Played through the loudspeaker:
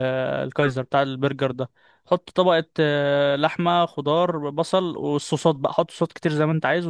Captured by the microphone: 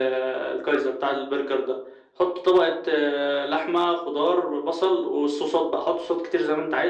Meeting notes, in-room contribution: none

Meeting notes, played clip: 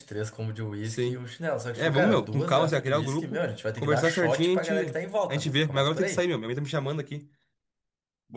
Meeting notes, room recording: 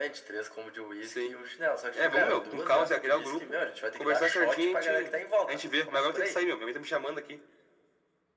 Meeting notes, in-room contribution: none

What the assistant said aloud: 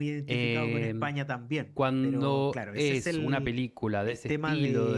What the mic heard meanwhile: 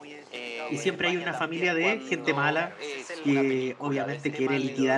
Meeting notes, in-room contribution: present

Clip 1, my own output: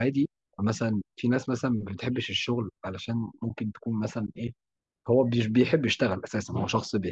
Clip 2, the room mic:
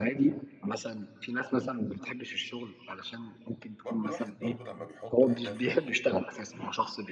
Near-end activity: present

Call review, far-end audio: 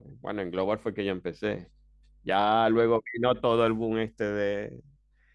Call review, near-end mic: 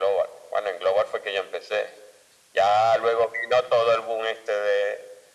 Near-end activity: none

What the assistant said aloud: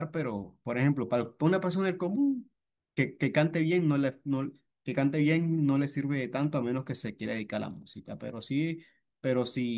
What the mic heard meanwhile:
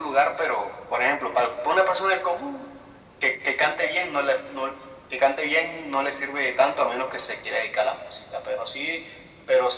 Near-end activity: none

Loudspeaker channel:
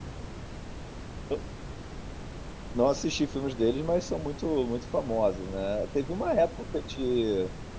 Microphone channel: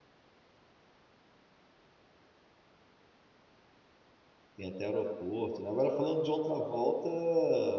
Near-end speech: present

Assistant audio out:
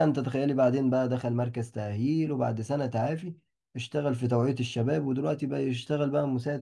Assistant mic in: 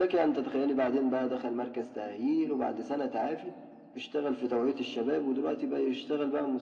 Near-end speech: none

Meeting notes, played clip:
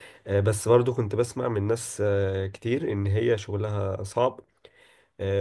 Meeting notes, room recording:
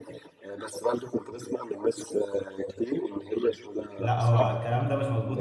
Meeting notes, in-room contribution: present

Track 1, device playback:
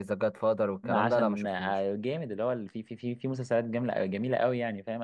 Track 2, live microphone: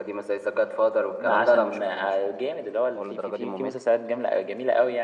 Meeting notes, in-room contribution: present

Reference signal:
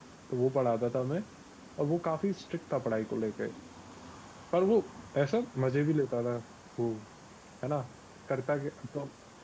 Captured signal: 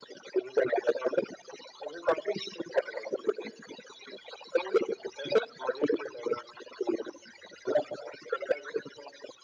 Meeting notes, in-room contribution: none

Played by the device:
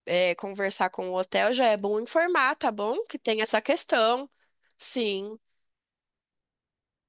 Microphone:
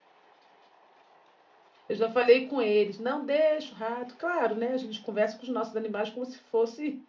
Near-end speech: present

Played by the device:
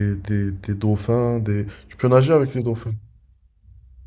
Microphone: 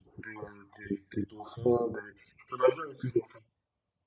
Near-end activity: none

